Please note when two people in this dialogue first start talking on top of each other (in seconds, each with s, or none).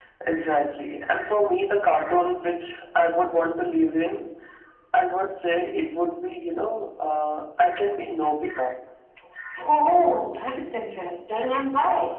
none